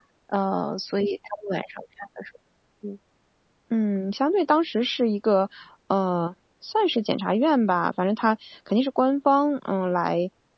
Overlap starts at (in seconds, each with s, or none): none